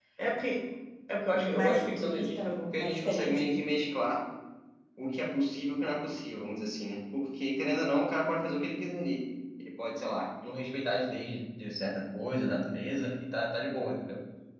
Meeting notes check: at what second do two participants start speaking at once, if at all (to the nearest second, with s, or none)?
1 s